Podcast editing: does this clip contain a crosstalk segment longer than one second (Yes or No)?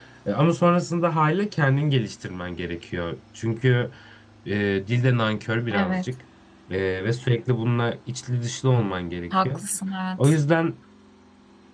No